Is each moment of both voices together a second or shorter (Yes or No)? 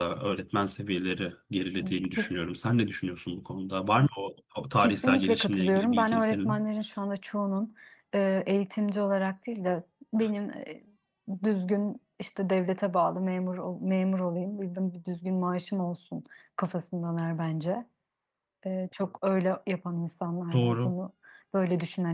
No